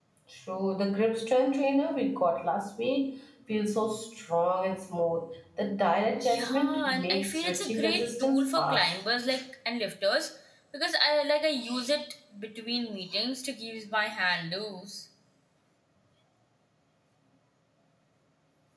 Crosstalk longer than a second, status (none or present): present